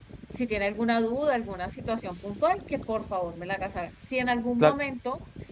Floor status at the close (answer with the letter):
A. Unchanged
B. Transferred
A